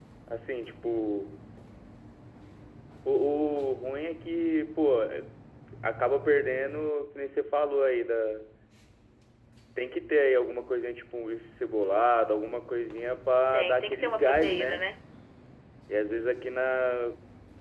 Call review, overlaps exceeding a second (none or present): present